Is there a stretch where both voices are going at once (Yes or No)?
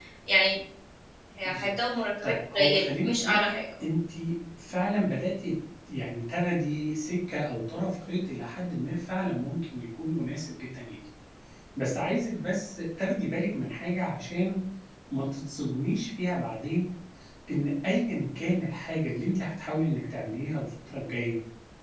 Yes